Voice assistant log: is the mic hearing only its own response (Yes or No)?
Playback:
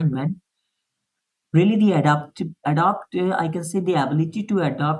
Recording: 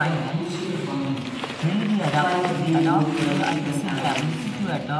No